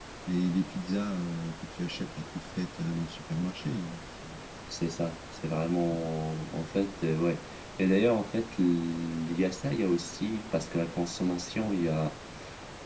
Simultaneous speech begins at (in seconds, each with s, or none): none